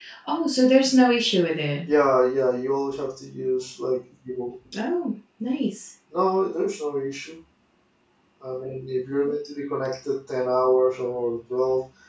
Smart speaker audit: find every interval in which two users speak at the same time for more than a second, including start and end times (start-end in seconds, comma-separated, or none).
none